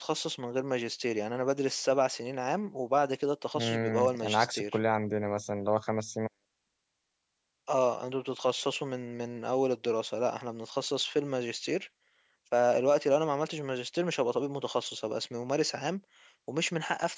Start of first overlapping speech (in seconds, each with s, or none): 3.5 s